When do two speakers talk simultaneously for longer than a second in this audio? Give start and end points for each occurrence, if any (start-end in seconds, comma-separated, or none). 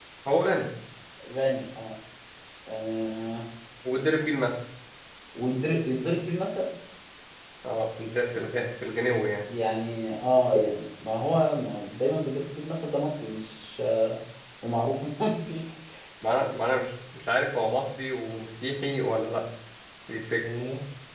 none